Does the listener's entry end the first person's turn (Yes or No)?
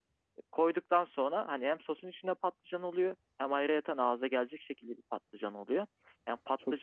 No